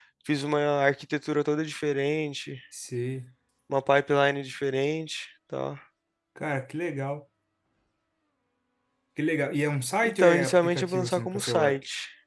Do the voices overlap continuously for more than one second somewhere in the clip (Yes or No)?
Yes